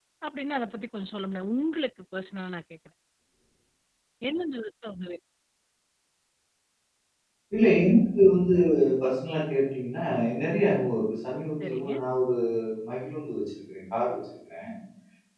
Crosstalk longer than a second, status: none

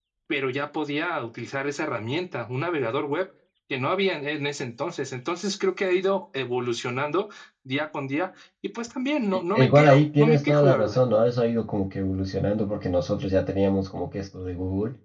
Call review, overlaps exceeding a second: present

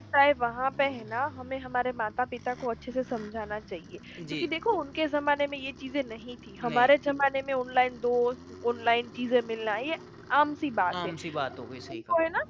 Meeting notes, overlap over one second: none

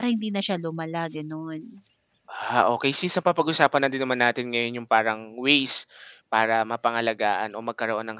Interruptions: none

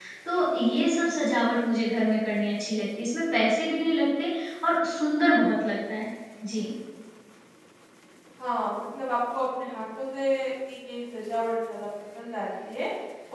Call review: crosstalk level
none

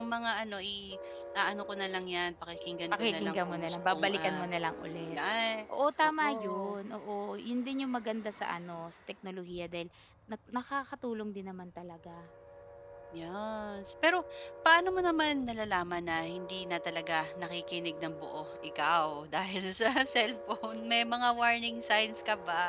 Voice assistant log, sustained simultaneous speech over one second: present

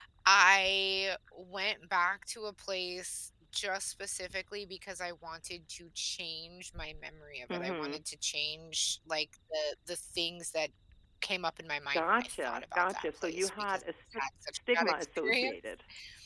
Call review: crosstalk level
present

